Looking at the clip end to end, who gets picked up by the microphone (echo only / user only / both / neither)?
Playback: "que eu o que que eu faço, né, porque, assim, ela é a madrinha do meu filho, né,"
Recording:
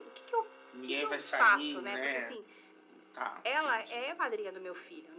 both